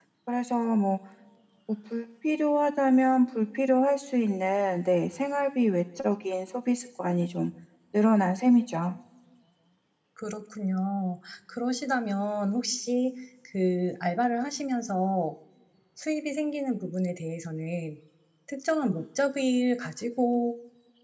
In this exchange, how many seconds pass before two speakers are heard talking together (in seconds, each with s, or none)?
none